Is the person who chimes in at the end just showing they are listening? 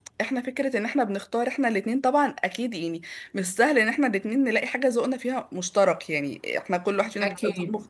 Yes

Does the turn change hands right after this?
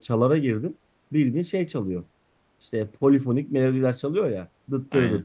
No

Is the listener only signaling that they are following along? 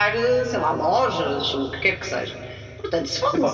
No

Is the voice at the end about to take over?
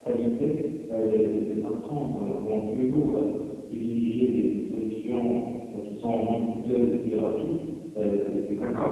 No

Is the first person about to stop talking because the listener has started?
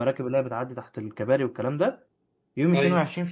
No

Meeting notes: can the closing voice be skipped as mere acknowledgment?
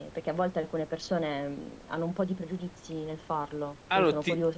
No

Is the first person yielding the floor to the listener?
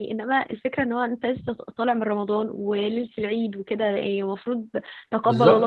No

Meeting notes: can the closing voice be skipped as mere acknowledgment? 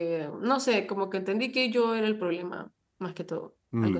No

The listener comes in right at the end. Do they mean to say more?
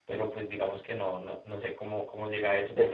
Yes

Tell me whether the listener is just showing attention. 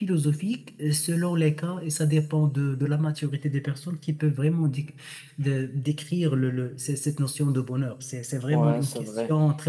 No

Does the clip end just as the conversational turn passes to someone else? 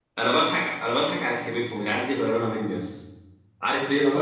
No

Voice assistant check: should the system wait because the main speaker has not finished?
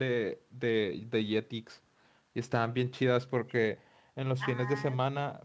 Yes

